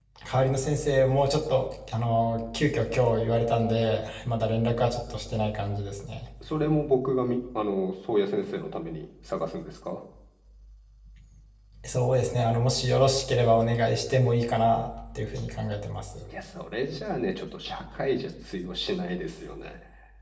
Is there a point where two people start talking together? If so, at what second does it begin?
none

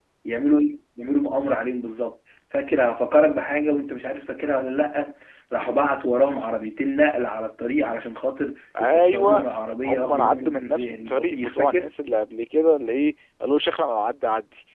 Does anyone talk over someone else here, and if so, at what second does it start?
8.8 s

